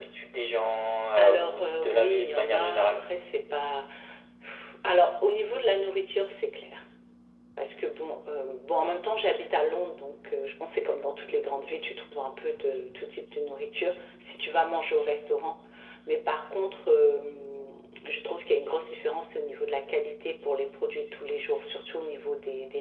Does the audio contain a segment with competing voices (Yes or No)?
Yes